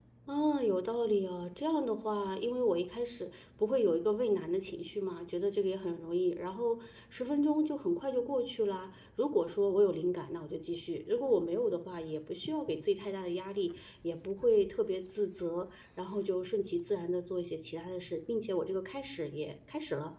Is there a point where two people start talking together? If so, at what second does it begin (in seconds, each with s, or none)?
none